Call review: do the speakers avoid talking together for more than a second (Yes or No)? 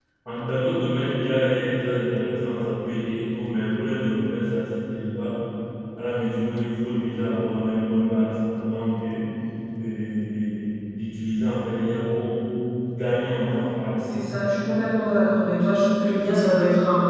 Yes